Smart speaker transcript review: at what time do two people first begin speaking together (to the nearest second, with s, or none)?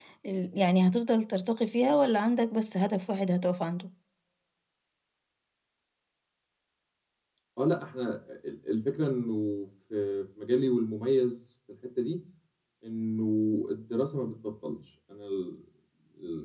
none